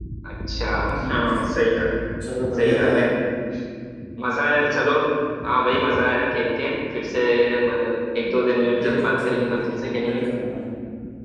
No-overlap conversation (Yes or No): No